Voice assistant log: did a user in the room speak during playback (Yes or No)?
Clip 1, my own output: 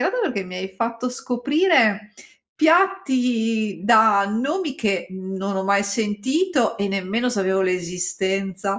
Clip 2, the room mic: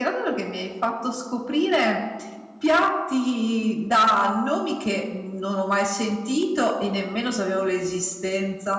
No